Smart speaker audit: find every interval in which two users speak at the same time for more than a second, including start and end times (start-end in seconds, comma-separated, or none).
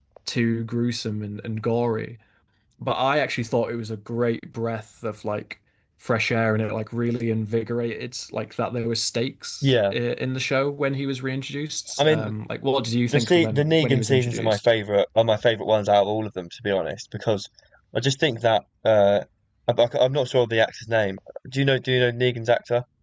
13.1-14.7